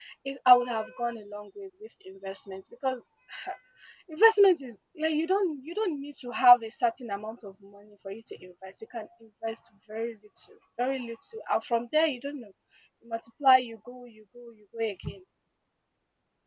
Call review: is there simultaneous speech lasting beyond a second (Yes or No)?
No